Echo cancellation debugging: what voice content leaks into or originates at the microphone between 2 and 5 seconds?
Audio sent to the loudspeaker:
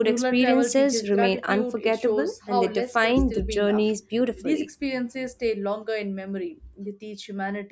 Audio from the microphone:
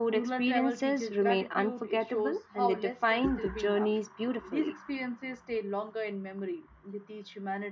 echo only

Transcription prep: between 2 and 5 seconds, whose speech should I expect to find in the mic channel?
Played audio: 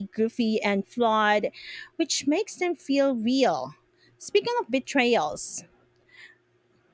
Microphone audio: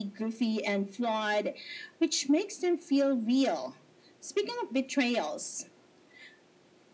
echo only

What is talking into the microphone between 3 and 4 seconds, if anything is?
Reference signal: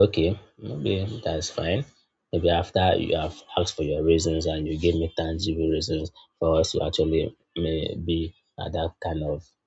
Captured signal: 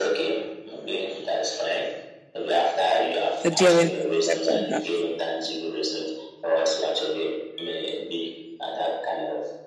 both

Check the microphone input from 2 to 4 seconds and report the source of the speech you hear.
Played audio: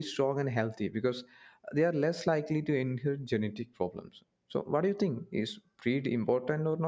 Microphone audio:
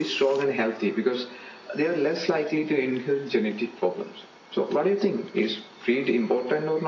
echo only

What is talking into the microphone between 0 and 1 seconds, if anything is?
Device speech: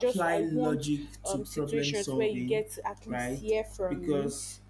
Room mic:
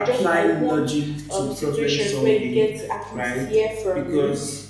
echo only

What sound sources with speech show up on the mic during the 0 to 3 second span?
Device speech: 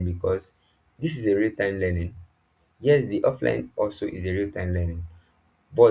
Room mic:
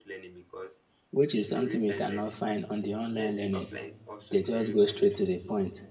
both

